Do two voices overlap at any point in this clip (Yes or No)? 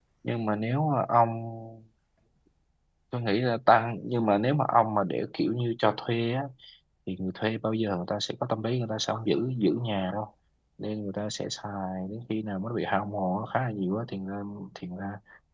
No